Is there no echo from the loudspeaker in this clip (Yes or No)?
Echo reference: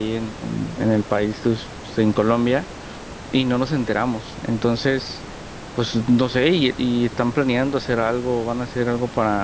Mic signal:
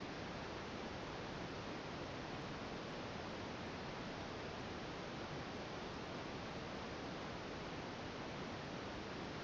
Yes